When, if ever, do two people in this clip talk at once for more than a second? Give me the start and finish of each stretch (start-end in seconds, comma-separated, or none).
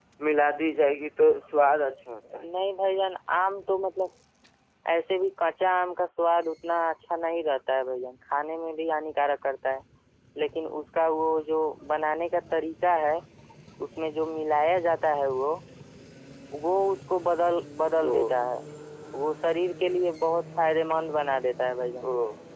none